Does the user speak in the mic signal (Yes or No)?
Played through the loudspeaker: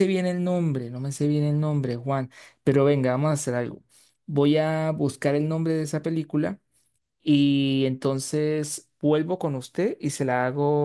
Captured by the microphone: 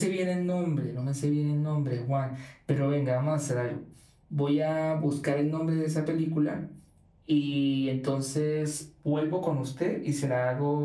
No